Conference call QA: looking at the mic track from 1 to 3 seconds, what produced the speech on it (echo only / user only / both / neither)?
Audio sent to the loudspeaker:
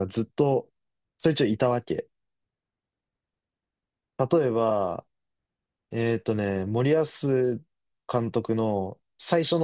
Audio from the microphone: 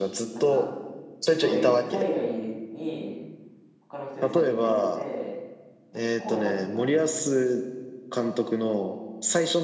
both